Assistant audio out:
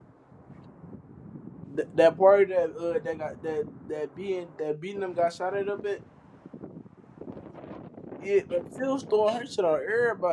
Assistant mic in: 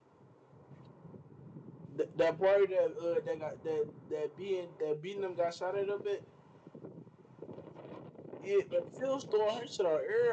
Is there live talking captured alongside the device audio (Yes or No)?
No